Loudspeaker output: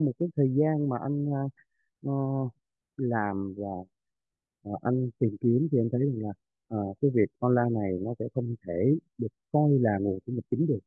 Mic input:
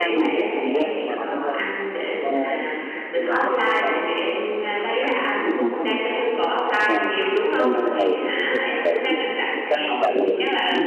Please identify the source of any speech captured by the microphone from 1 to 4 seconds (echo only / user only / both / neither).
both